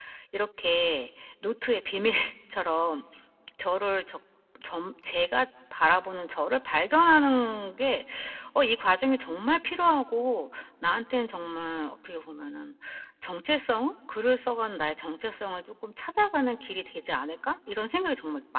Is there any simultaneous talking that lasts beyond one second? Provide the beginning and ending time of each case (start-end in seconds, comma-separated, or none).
none